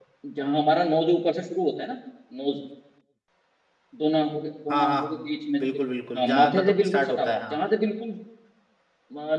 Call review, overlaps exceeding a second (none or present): present